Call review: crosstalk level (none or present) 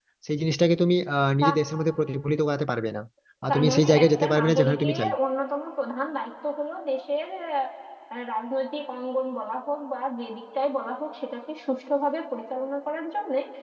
present